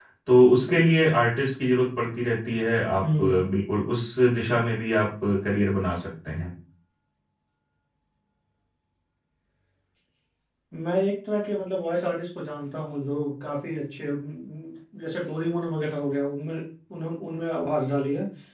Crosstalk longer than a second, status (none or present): none